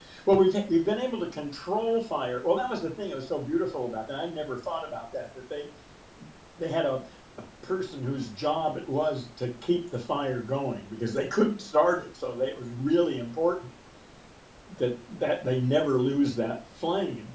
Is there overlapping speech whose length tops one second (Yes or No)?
No